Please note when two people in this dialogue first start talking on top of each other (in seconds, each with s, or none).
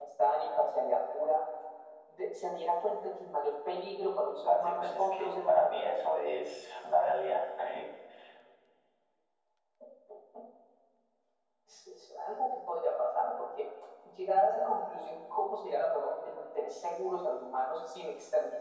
4.5 s